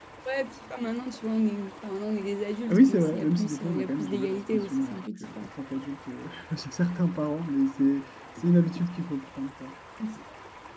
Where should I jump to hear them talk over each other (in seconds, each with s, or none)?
2.7 s